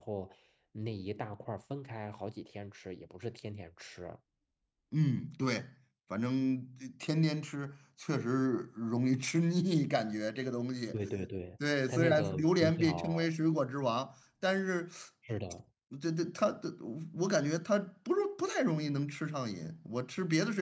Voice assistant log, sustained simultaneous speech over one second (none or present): present